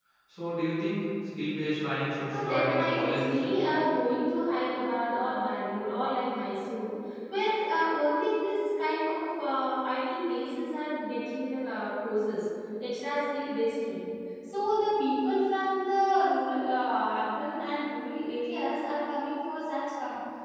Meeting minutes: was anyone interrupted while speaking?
Yes, from 2.3 s

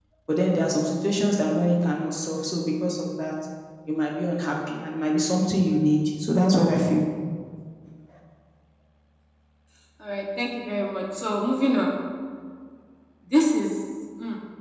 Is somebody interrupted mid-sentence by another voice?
No

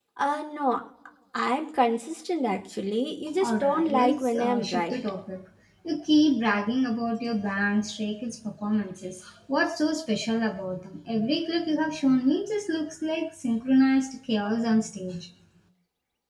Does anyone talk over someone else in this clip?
Yes, from 3.4 s

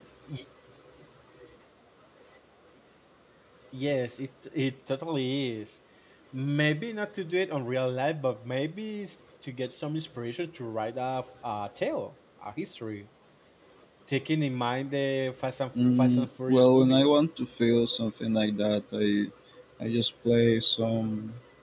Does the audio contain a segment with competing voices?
Yes, from 15.8 s

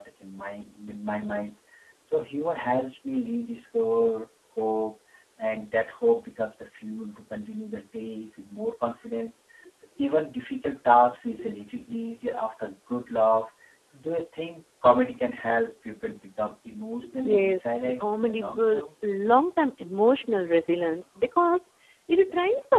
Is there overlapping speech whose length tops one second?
Yes, from 17.2 s

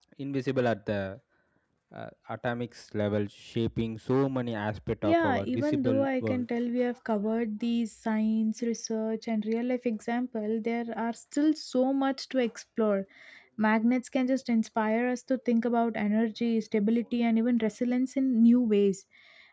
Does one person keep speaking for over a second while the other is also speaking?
Yes, from 5.0 s

